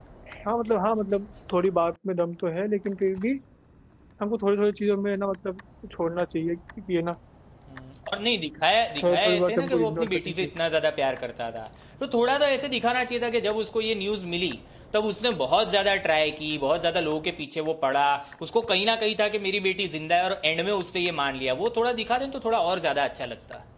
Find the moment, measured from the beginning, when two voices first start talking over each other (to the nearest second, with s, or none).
9 s